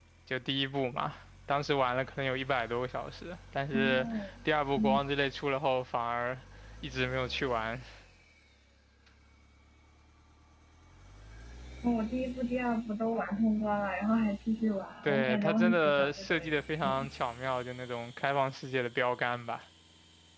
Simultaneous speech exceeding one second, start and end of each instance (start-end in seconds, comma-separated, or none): 15.0-17.1